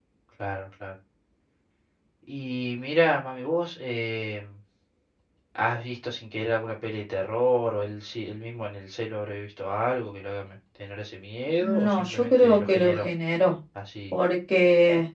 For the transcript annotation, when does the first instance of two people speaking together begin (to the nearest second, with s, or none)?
12 s